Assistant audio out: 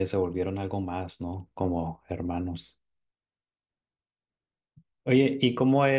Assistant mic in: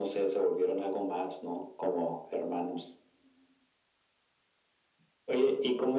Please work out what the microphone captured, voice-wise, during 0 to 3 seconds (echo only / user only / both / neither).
echo only